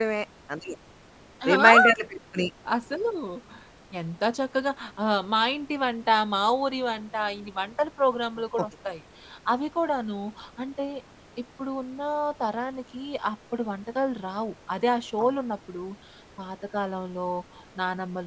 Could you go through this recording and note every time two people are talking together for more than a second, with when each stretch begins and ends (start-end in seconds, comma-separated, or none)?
none